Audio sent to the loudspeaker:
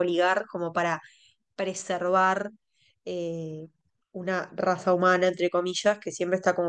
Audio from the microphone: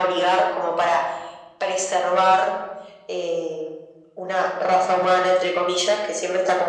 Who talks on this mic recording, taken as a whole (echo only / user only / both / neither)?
echo only